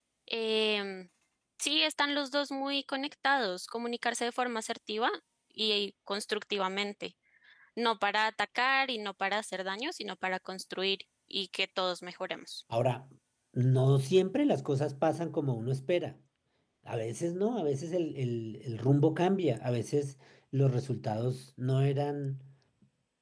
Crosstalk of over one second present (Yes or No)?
No